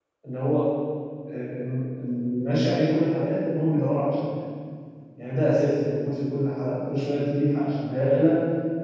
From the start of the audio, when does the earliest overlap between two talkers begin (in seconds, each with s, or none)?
none